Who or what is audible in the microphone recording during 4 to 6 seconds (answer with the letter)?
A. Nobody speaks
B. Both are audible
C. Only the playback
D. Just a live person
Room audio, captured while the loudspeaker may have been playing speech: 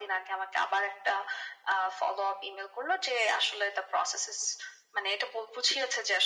C